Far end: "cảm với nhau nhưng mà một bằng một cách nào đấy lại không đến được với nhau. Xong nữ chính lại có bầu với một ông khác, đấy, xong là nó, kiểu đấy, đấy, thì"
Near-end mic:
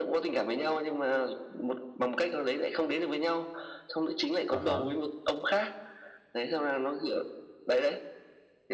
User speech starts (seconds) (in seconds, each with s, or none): 4.5 s